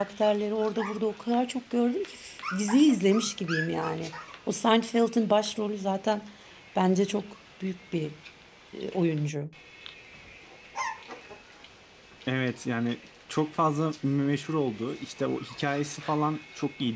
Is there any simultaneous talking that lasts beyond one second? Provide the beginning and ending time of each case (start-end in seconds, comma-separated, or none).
none